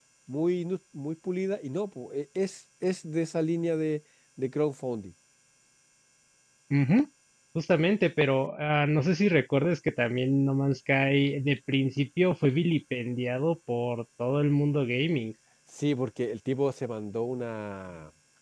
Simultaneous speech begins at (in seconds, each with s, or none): none